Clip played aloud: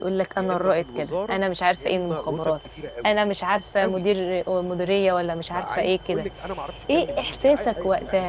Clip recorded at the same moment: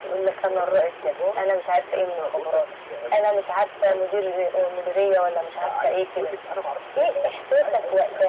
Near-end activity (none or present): none